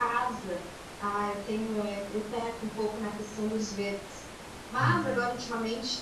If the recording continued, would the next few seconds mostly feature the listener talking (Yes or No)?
No